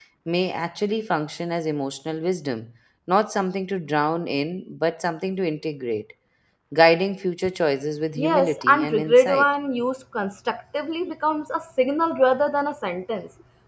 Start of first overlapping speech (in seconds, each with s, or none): 8.2 s